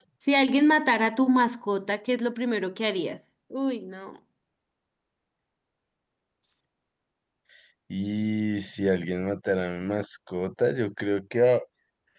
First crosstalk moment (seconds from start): none

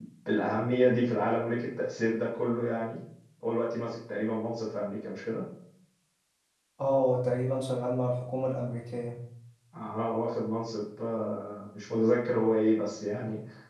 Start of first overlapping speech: none

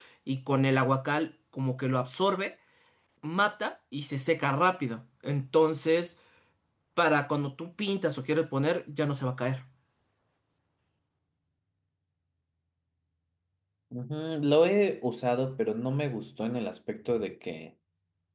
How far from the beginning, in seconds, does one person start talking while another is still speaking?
none

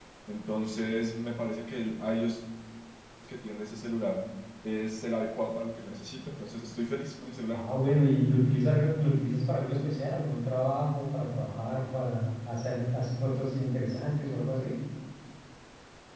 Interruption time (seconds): none

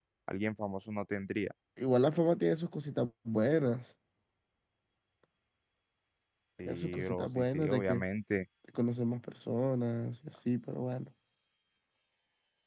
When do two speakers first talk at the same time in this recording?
7 s

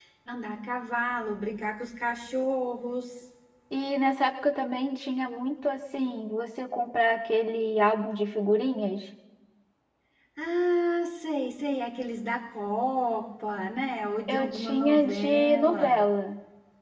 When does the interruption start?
14 s

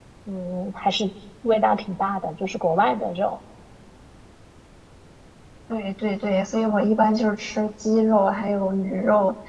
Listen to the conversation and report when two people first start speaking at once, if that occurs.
none

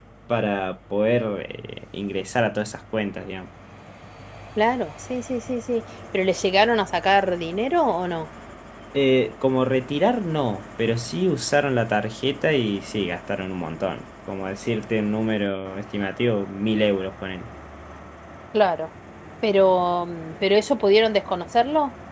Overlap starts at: none

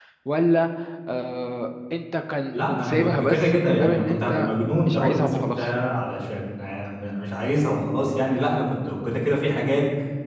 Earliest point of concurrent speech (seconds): 3 s

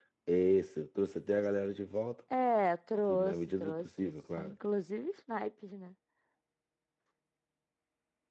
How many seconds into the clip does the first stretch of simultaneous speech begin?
3 s

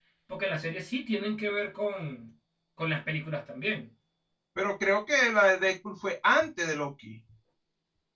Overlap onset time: none

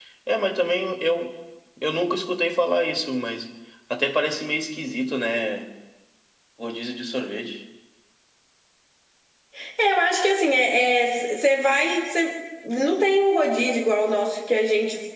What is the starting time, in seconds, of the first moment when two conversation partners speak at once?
none

